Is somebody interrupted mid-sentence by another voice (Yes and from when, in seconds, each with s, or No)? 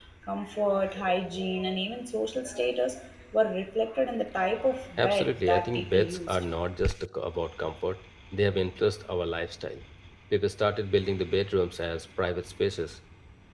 Yes, from 5.0 s